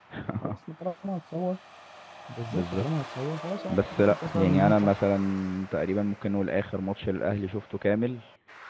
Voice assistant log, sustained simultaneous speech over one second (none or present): present